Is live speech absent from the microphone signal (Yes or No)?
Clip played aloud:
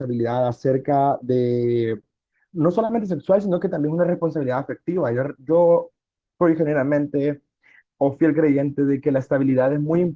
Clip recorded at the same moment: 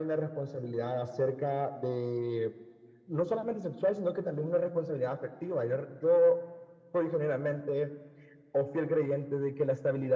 Yes